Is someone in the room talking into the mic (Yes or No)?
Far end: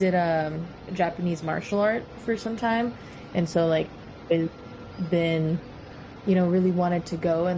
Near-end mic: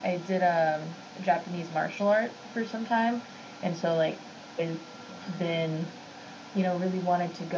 Yes